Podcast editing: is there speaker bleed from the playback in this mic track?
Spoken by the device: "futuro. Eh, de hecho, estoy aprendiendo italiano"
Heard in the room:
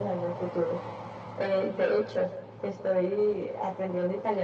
Yes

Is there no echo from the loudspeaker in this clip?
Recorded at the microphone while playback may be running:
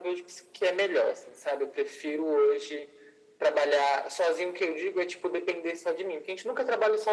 No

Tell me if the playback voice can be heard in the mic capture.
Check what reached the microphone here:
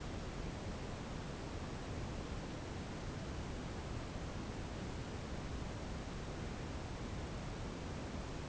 No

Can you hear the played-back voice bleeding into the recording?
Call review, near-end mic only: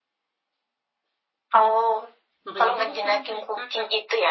Yes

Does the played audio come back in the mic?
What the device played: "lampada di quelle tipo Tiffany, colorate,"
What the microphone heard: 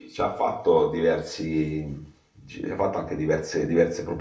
No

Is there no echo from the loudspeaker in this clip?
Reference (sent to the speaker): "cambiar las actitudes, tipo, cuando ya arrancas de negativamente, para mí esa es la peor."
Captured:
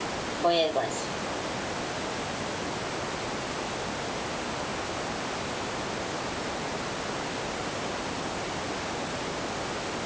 Yes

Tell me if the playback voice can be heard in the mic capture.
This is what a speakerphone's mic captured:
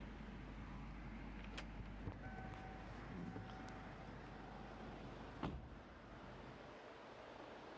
No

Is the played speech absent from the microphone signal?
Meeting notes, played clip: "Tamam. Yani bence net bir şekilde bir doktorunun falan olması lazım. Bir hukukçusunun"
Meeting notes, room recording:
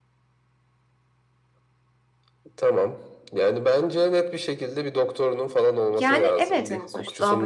No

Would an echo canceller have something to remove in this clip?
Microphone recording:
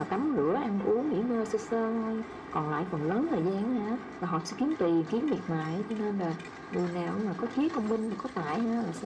Yes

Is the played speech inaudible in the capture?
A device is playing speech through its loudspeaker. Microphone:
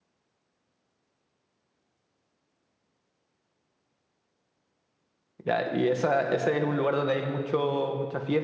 Yes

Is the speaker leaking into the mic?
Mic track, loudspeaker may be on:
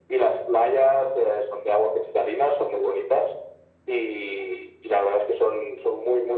Yes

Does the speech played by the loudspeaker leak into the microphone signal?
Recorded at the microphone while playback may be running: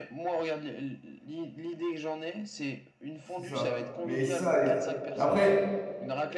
Yes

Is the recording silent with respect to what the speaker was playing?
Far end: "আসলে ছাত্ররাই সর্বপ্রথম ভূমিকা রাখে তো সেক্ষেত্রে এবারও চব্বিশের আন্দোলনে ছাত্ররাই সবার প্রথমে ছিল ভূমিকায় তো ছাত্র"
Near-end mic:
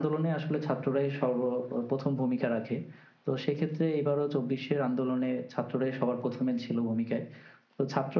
No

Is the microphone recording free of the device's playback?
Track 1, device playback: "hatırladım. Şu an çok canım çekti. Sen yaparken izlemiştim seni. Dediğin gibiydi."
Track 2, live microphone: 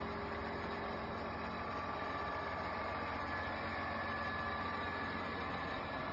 Yes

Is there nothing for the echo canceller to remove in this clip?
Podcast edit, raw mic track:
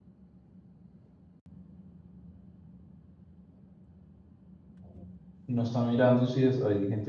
Yes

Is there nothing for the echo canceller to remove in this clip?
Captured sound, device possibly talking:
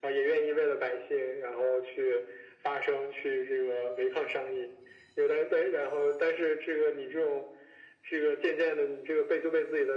No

